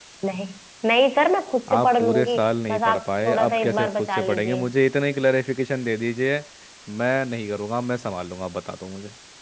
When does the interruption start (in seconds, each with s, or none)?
1.7 s